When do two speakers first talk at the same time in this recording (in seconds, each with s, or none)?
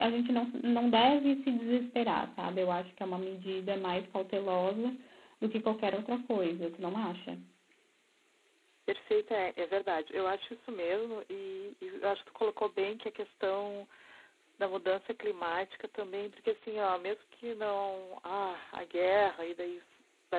none